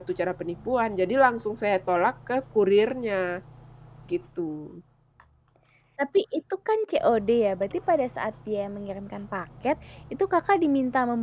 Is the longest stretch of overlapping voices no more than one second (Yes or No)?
Yes